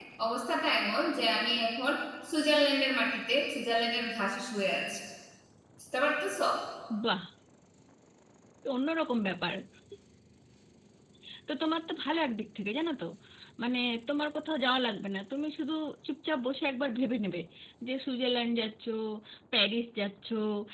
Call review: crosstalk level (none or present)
none